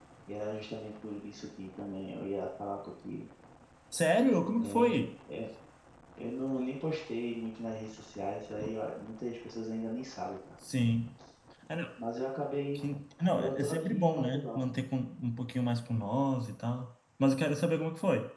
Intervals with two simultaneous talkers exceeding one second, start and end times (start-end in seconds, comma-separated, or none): 13.4-14.6